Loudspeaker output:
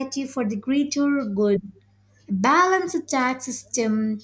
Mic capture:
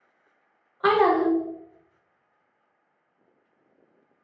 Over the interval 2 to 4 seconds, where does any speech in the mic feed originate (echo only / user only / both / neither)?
neither